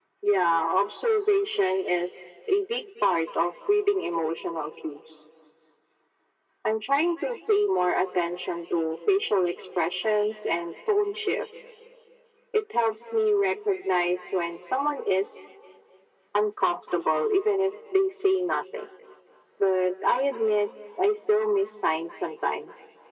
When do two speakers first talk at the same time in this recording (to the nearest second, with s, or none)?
none